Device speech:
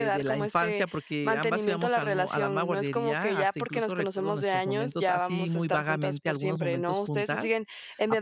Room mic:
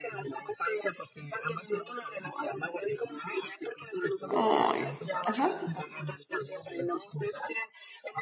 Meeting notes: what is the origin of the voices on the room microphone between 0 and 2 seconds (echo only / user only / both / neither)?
echo only